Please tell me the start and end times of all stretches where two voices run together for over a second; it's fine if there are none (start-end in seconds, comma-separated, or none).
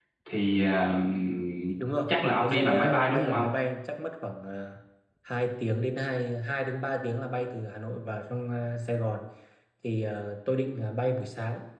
2.1-3.4